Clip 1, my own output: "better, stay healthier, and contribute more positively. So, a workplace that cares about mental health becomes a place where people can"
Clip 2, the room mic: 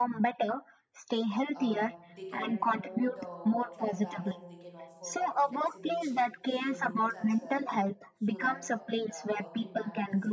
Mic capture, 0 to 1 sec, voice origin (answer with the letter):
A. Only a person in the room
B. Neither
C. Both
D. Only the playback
D